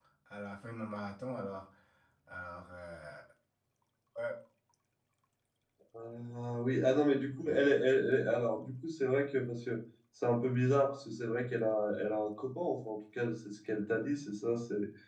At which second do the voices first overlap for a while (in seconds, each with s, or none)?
none